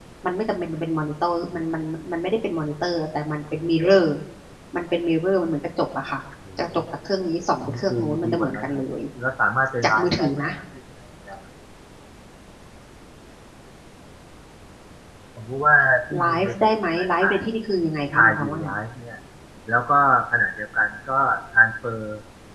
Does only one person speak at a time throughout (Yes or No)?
No